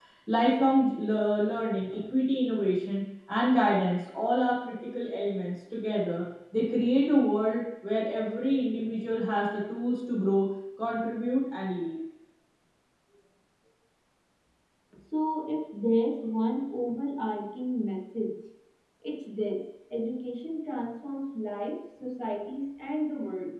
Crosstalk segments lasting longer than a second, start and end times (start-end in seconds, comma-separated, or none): none